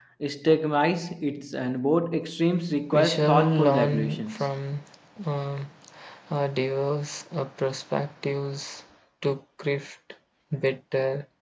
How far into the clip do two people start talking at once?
2.9 s

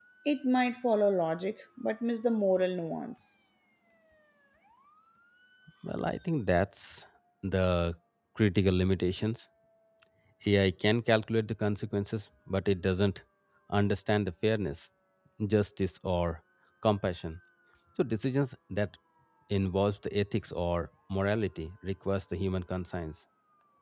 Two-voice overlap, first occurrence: none

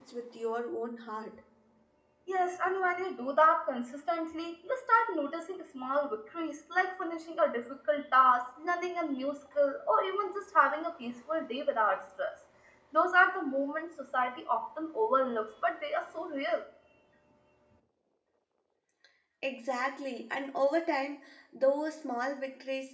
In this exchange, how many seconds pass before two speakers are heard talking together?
none

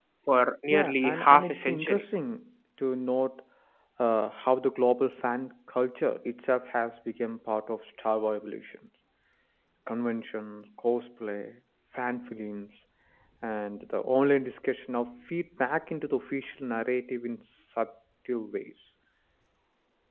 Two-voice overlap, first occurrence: 0.7 s

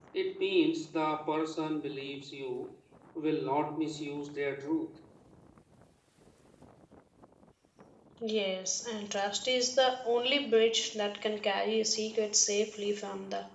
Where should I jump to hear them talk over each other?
none

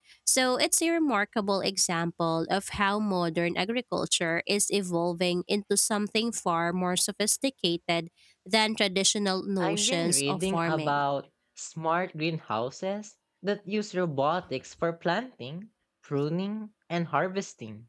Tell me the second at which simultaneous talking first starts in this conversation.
9.6 s

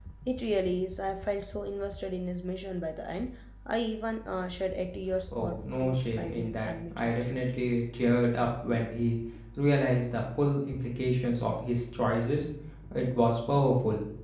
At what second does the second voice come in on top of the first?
5.3 s

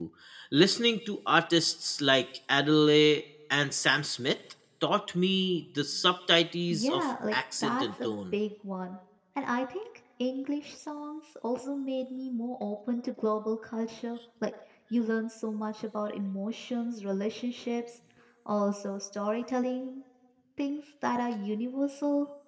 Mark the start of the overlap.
6.7 s

